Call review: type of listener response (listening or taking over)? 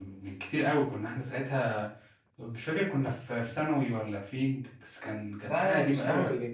taking over